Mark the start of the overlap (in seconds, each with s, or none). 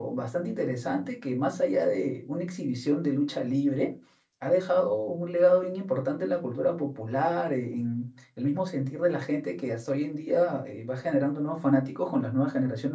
none